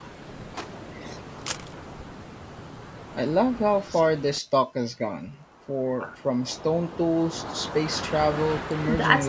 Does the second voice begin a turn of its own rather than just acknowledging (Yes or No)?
Yes